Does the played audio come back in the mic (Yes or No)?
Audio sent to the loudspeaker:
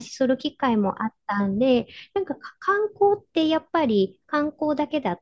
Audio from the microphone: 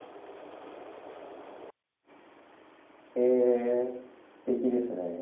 No